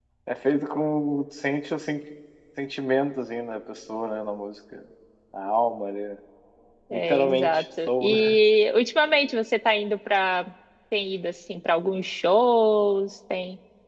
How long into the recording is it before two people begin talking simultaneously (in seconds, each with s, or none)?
6.9 s